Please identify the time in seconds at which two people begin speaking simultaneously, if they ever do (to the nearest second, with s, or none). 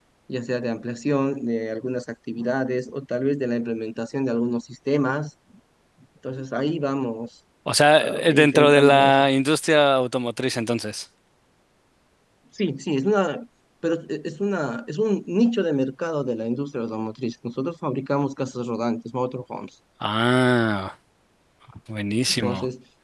8 s